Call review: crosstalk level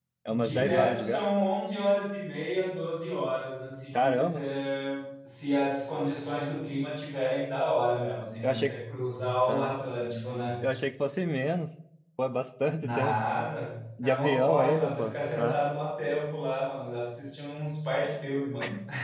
present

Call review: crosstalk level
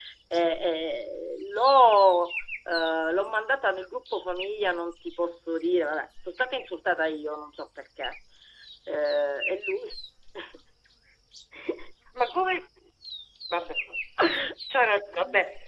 none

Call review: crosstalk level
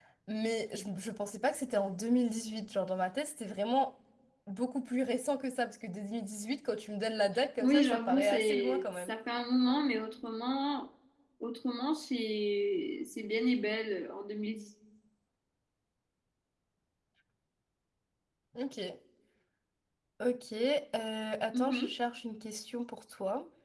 present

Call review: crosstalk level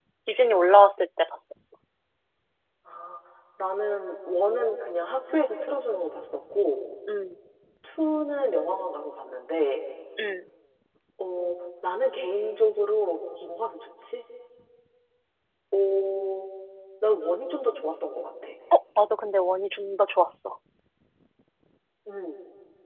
none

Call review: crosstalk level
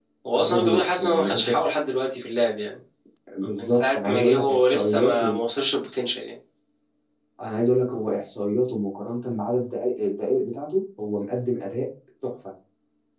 present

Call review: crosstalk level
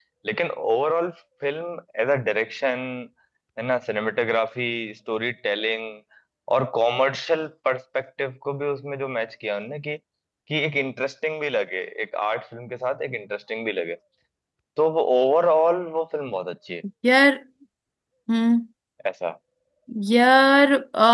none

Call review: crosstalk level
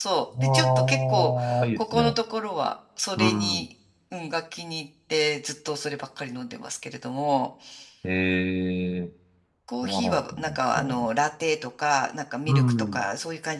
present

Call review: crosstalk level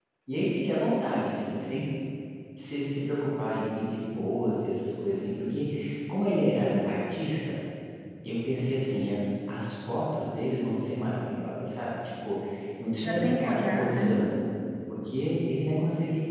present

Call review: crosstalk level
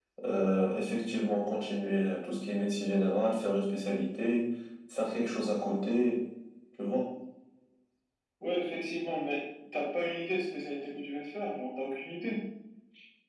none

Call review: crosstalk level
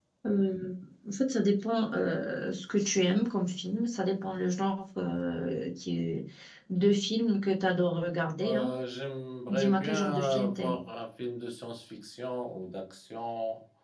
present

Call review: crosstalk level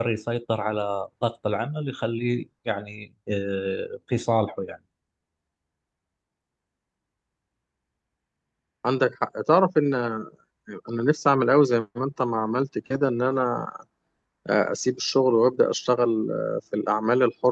none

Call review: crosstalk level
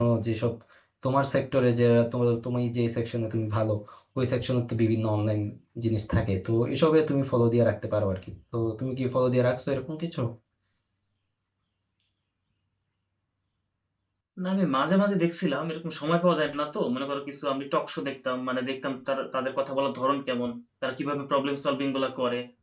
none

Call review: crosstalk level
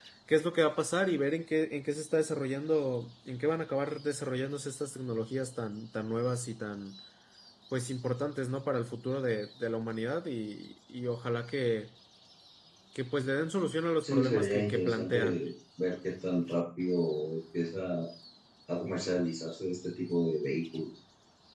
present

